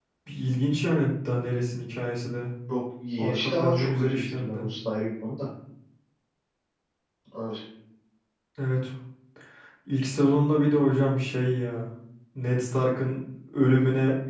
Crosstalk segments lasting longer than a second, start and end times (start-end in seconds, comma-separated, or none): 3.2-4.7